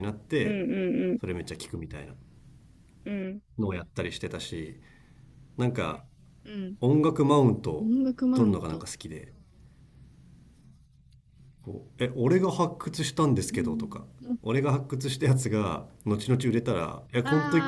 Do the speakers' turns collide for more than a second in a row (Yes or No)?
No